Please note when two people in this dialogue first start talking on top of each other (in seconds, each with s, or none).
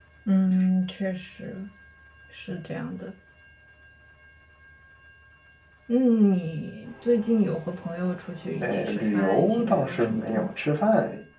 8.6 s